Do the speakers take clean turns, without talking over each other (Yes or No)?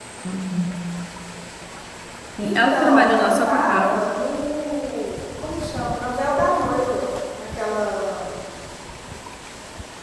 No